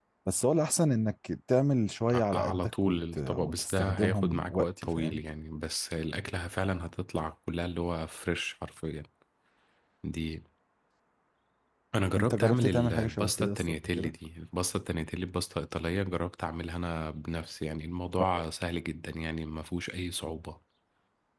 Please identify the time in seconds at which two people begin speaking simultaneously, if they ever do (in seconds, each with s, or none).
2.3 s